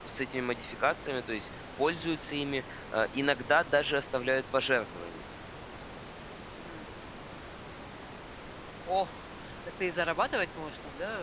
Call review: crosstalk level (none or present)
none